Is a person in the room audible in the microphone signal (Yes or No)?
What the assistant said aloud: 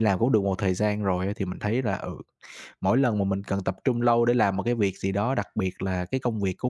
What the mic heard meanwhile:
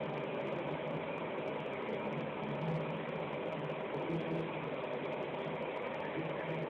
No